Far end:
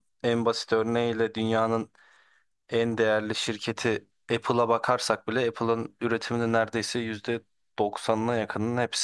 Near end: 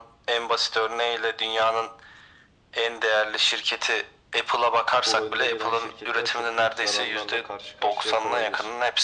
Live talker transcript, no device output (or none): bu önde gelen şirketler çok büyük zararlarla karşı karşıya kalabilir.